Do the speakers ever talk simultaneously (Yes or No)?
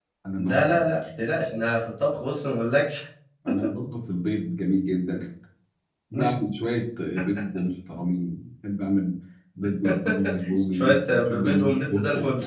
Yes